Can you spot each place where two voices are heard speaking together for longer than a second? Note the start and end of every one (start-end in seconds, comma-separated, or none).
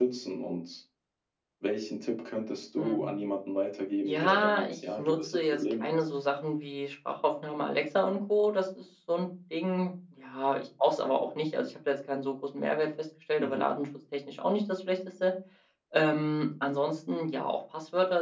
4.0-5.9